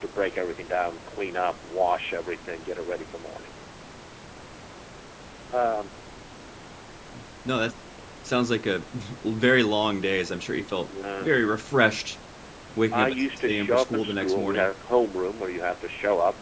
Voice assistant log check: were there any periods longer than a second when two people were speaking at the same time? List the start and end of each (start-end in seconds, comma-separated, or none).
12.9-14.7